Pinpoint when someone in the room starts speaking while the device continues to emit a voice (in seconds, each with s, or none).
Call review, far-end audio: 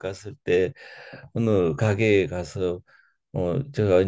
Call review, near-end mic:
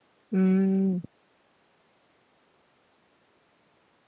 0.3 s